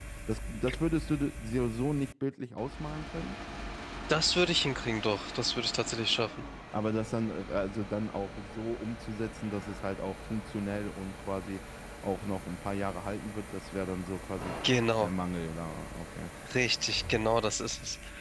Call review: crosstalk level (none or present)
none